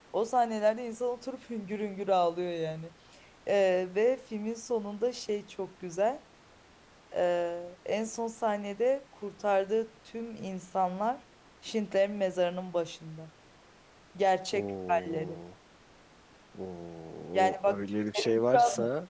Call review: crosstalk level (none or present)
present